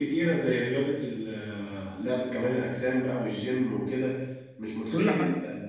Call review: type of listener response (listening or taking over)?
listening